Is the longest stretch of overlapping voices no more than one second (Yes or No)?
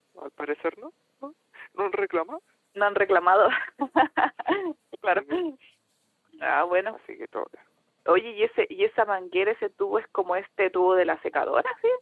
Yes